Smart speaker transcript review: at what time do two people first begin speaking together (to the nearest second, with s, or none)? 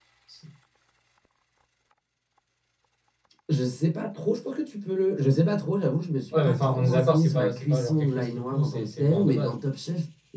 6 s